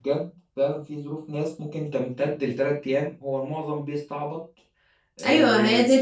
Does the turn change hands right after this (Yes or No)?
Yes